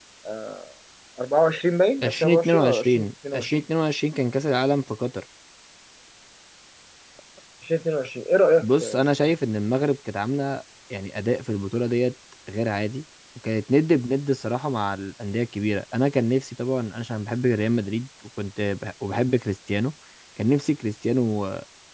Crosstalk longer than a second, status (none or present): present